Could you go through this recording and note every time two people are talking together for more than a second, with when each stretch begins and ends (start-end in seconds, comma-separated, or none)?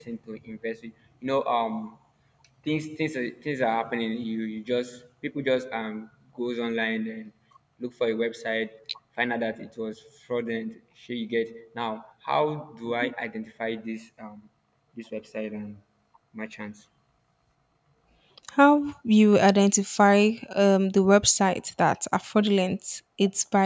none